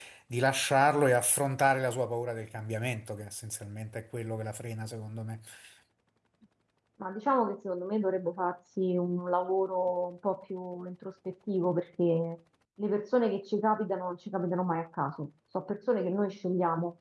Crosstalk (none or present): none